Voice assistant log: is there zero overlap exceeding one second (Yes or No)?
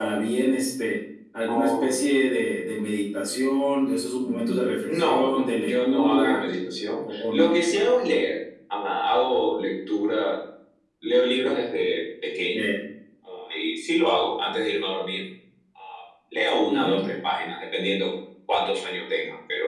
No